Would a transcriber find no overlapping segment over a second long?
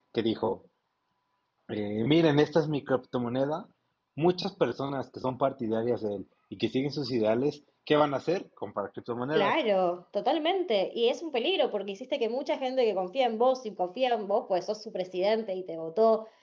Yes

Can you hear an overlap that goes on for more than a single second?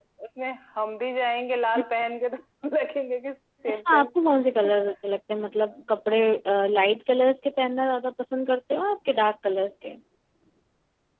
No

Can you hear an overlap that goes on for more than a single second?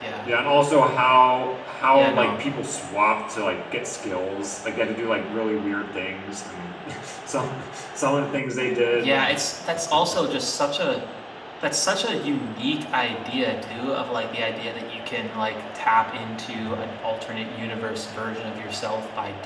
No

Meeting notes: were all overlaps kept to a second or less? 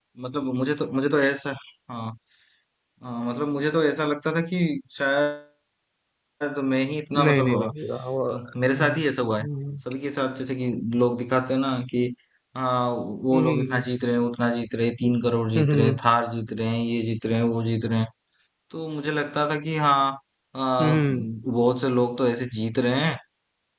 Yes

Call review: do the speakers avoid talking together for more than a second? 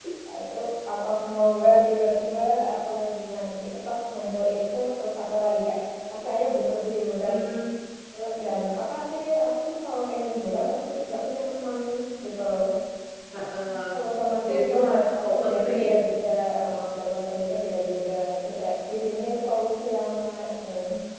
No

